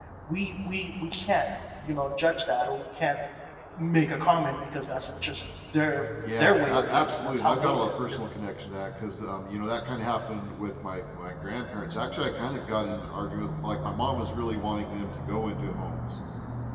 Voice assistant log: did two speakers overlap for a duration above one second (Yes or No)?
Yes